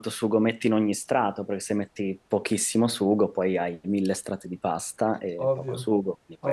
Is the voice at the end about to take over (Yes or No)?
Yes